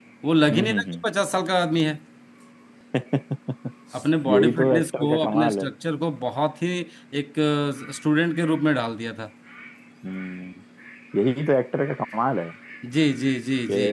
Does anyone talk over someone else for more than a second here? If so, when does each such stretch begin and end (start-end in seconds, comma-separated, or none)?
4.3-5.7